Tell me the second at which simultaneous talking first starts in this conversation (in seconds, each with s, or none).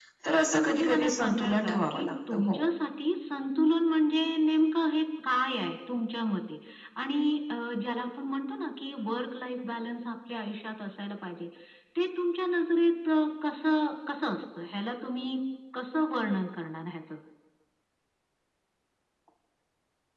0.5 s